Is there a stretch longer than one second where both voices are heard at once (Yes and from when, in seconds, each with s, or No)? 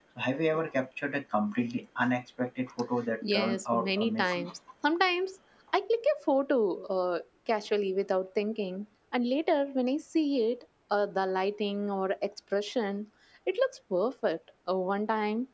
Yes, from 3.2 s